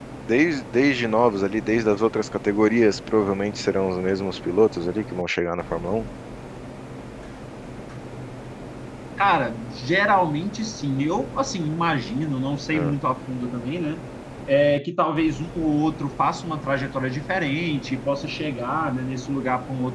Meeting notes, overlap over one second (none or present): none